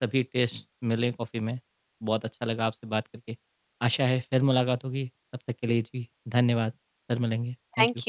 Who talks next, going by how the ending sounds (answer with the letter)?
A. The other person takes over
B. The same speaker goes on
A